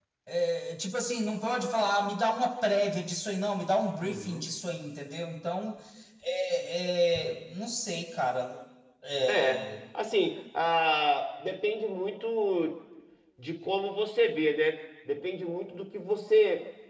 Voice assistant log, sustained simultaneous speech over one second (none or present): none